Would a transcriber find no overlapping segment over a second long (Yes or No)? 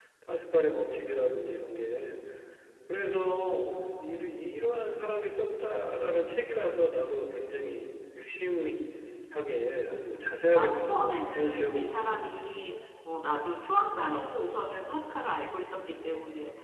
No